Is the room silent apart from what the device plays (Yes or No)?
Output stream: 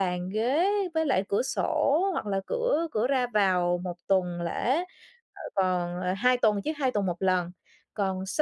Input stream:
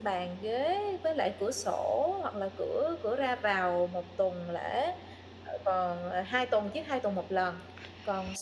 Yes